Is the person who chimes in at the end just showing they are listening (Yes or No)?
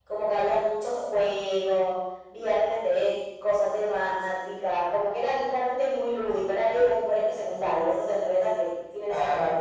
No